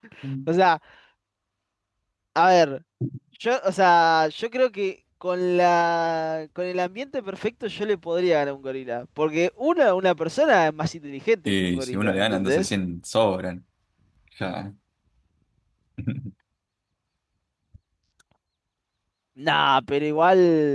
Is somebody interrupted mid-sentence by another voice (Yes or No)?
Yes